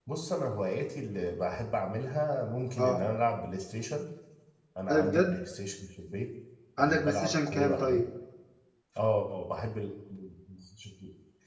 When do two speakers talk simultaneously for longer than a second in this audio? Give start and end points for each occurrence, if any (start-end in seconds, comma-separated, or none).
6.8-8.0